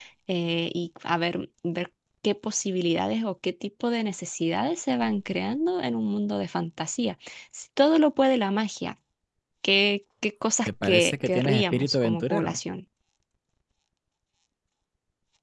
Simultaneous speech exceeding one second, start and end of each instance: 10.8-12.6

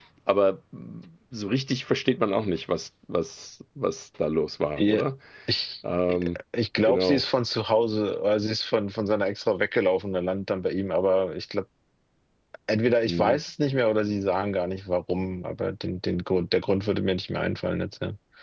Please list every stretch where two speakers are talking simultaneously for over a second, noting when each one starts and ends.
none

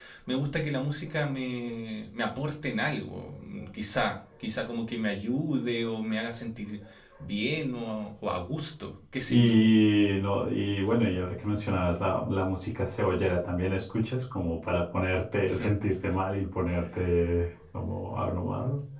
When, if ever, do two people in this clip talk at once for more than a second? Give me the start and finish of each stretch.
none

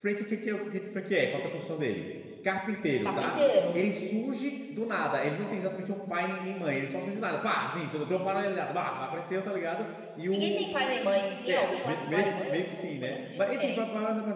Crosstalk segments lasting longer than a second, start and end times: 11.5-13.8

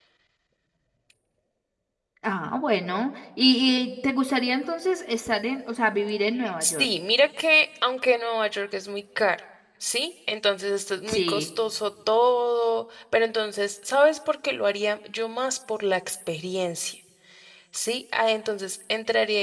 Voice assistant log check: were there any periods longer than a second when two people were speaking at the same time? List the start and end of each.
none

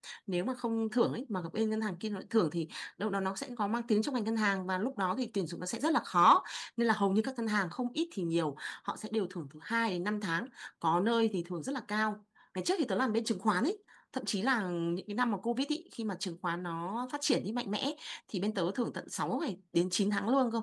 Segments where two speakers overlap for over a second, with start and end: none

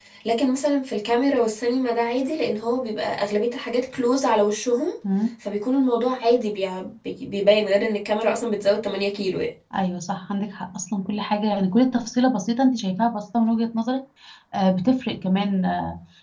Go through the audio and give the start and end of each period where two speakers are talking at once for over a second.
none

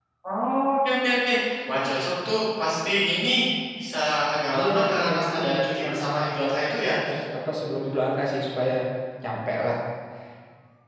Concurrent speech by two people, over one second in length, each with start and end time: 4.6-6.0

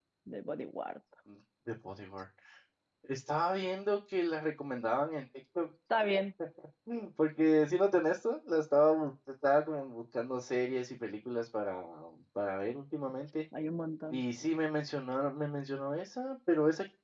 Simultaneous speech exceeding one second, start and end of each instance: none

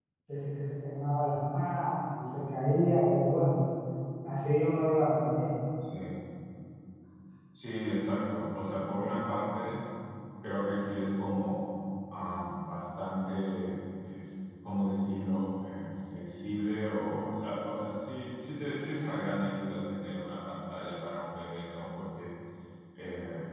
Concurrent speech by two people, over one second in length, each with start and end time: none

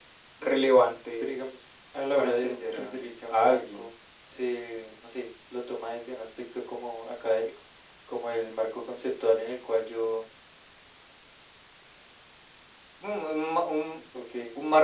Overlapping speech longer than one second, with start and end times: 2.1-3.9

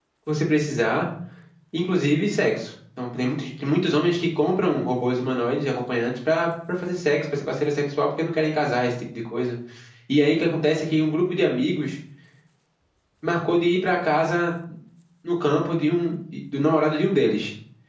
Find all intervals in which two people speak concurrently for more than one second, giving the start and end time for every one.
none

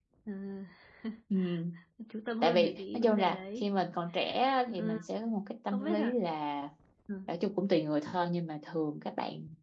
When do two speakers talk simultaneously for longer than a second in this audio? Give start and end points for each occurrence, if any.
2.4-3.6

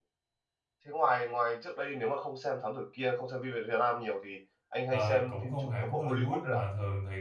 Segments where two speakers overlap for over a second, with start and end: 4.9-6.6

